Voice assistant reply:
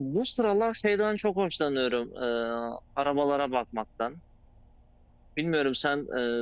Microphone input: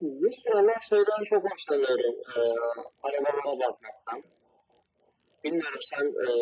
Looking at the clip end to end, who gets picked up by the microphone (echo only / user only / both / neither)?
echo only